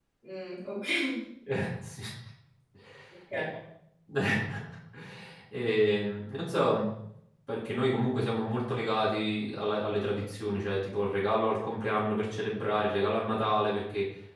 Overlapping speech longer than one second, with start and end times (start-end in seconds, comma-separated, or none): none